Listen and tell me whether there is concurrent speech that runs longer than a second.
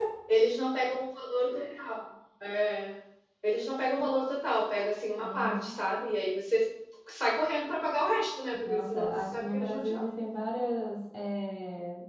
Yes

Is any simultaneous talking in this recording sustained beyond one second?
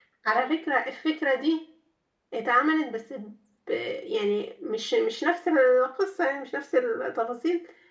No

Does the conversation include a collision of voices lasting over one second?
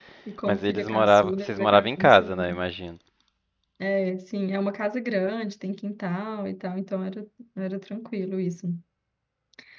Yes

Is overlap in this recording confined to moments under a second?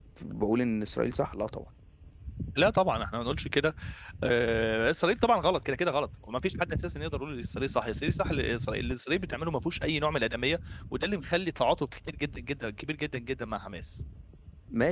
Yes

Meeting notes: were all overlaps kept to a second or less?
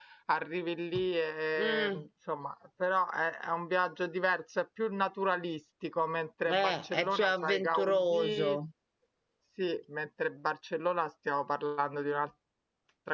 No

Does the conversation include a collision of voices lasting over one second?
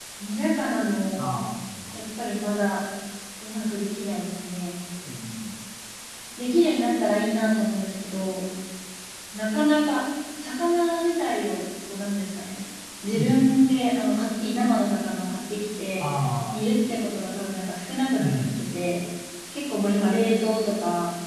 No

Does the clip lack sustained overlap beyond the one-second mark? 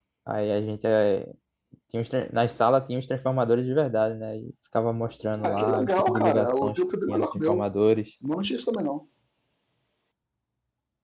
No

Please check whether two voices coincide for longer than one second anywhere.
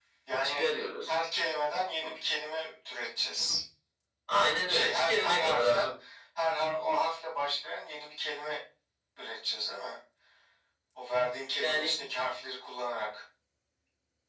Yes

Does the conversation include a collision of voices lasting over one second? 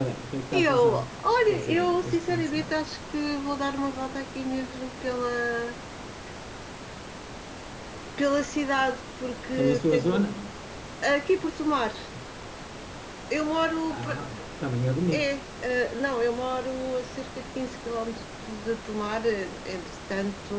Yes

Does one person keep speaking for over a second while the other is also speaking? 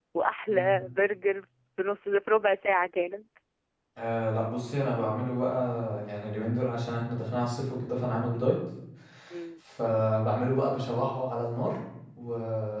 No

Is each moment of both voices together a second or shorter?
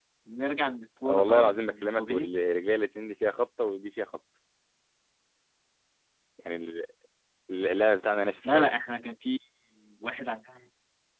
No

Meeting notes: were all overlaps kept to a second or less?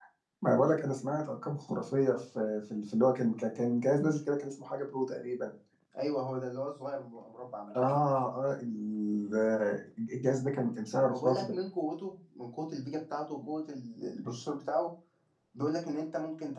Yes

